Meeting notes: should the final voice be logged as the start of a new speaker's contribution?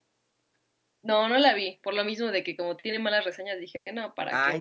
Yes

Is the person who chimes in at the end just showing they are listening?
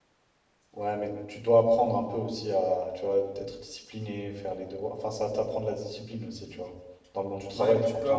No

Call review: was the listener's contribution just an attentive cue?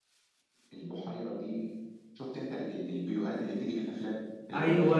Yes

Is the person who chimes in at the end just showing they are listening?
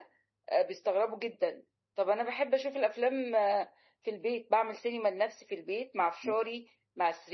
Yes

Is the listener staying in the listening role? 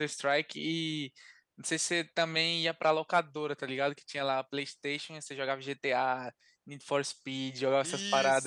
No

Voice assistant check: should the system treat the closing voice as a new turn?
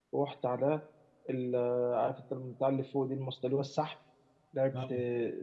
No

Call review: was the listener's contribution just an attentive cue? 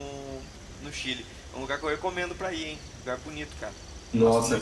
No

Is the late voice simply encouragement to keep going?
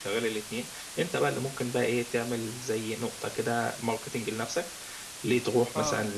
Yes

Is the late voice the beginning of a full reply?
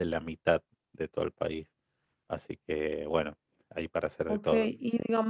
Yes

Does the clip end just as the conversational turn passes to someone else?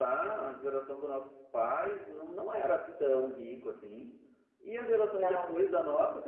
No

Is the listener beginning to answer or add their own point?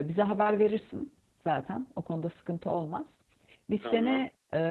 No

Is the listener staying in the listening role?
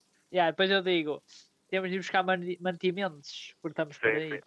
No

